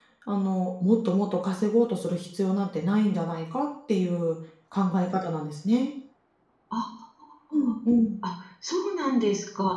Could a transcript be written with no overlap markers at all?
Yes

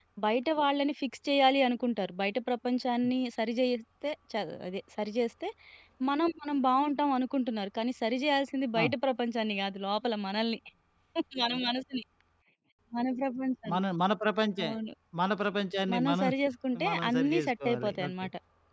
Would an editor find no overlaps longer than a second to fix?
No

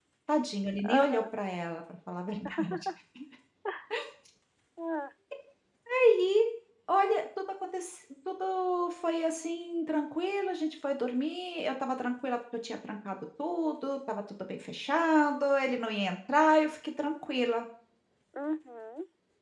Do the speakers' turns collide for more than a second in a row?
No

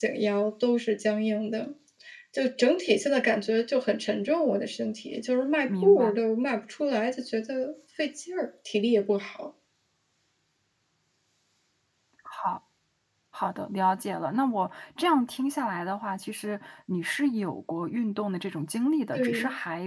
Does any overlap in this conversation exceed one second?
No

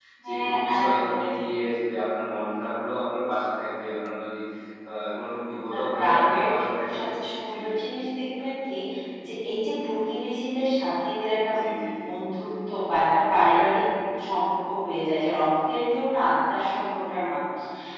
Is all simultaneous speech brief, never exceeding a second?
No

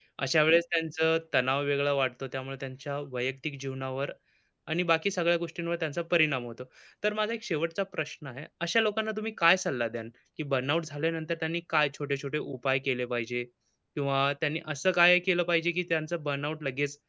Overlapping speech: No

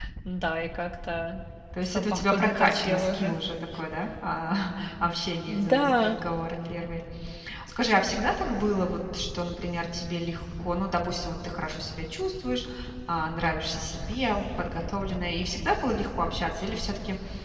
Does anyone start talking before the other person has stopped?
Yes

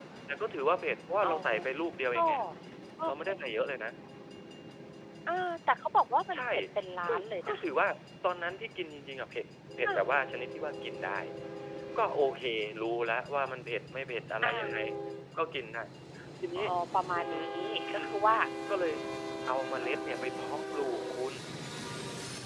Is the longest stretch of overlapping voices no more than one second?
Yes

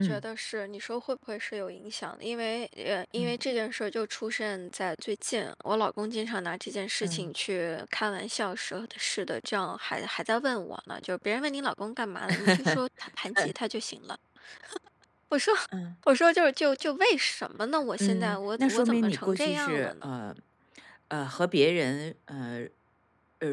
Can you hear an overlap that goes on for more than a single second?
Yes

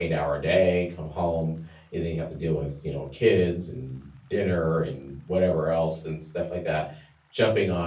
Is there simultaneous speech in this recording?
No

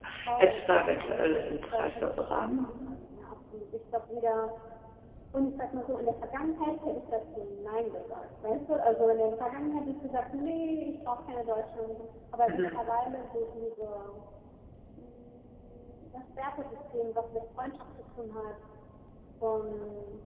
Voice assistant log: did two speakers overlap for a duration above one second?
Yes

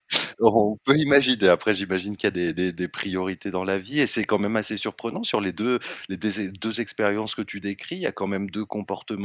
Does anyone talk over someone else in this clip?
No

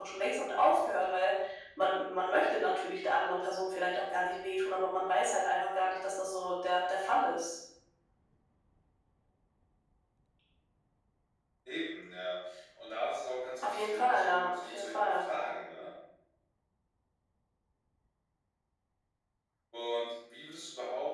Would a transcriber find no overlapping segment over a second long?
No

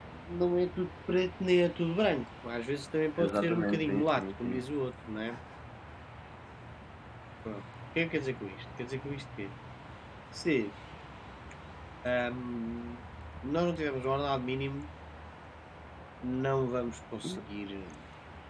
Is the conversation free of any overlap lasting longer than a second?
No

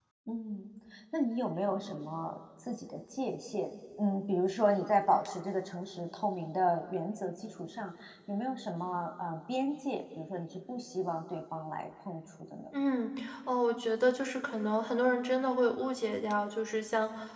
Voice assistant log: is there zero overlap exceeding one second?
Yes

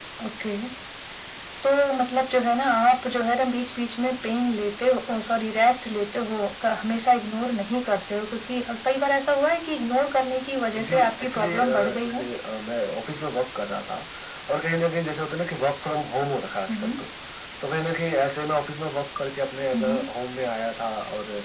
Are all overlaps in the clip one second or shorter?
No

